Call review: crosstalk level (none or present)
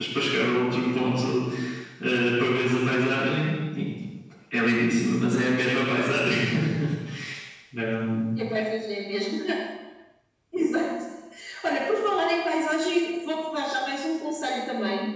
none